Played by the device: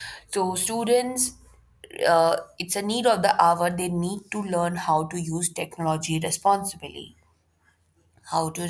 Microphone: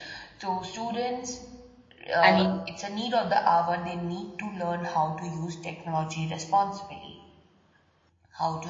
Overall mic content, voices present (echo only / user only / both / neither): both